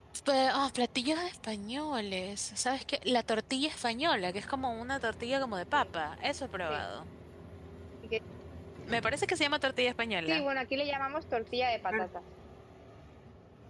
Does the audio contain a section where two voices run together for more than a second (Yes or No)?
No